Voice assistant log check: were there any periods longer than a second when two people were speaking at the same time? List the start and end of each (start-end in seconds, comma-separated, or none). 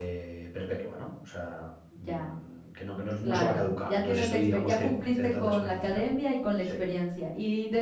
3.2-6.0